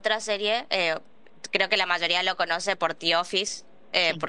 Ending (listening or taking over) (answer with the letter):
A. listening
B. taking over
A